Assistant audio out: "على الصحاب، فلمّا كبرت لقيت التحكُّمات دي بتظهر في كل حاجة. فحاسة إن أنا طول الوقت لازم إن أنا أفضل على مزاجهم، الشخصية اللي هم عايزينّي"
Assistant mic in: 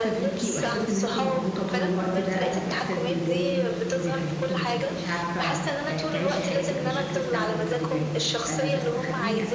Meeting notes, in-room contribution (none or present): present